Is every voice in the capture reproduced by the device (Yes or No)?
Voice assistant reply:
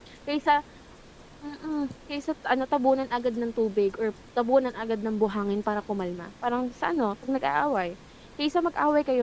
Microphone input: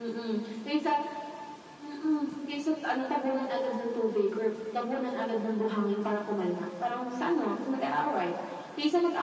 Yes